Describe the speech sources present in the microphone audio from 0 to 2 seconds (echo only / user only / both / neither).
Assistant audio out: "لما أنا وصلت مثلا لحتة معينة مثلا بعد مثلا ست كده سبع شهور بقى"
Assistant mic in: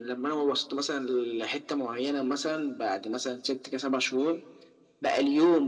echo only